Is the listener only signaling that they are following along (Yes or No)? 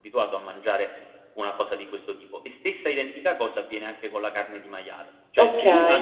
Yes